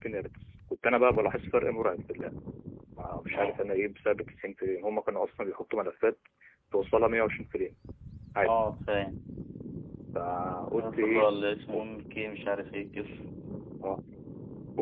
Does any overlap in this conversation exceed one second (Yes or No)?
No